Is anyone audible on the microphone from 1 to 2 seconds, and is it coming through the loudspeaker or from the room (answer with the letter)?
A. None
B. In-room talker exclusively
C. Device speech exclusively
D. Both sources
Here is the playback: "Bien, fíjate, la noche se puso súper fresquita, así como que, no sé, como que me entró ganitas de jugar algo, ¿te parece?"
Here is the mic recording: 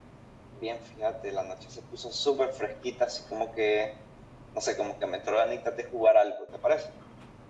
C